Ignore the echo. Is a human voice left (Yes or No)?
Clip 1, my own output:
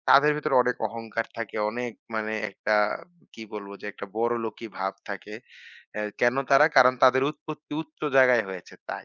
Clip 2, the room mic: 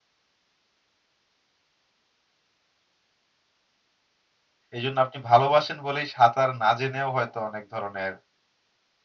Yes